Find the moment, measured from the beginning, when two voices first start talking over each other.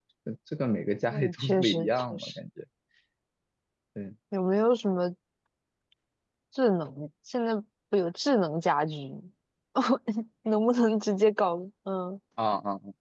1.1 s

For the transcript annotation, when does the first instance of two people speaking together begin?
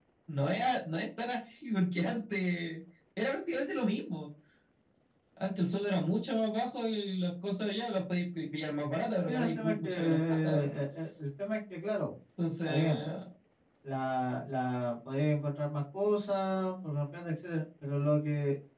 9.3 s

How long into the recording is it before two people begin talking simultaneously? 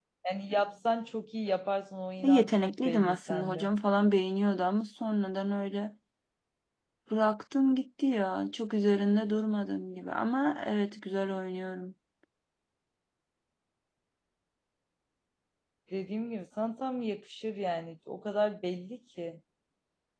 2.2 s

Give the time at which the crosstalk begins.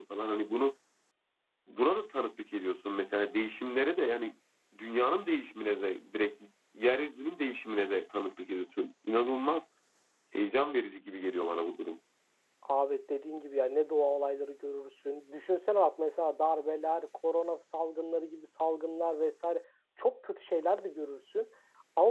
none

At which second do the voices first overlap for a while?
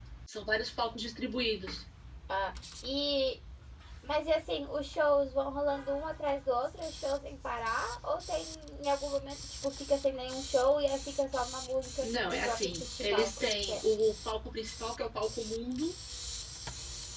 12.0 s

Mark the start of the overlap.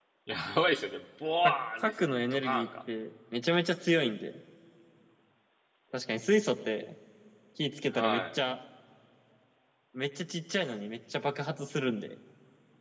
1.4 s

